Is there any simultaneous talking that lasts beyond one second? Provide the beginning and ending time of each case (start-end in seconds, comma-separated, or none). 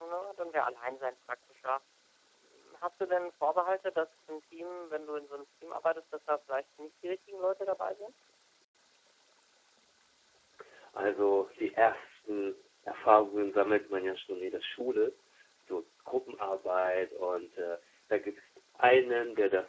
none